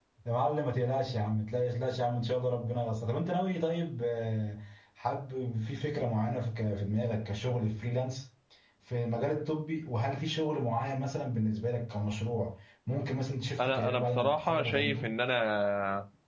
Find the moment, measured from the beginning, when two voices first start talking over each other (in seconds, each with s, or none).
13.6 s